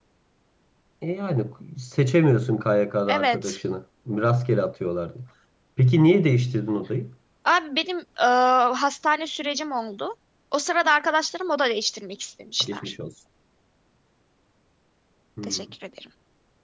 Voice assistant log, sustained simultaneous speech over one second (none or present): none